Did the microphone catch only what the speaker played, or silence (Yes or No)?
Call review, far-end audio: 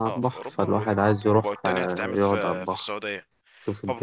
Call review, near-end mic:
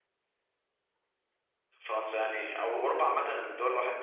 No